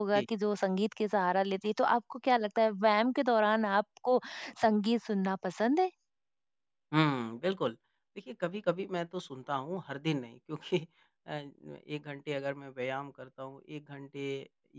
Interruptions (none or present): none